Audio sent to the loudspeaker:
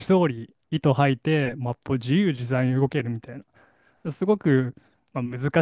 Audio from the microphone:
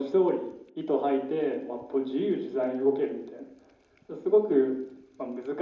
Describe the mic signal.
echo only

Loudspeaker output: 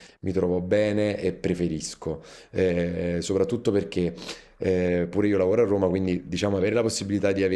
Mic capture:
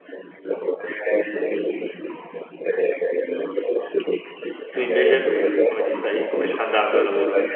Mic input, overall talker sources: both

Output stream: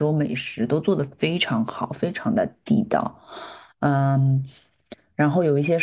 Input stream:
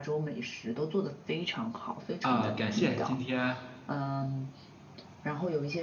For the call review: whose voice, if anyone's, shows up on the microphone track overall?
both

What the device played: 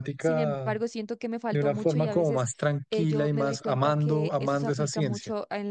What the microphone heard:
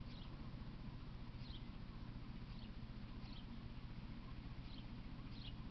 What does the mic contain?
neither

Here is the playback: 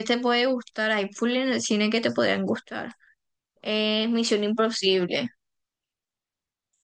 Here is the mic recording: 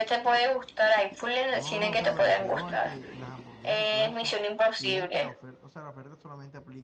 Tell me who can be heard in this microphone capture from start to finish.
both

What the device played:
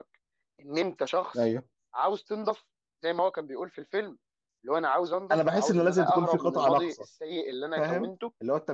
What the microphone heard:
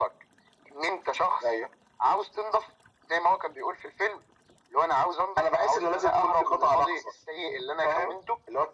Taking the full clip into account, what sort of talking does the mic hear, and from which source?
echo only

